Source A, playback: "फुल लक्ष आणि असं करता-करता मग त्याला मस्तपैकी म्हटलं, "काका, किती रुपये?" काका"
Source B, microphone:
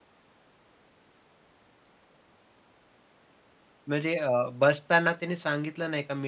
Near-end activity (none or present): present